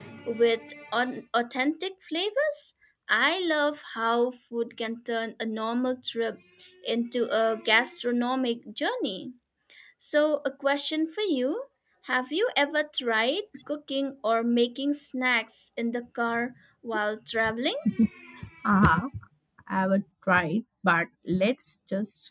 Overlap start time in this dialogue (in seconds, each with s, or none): none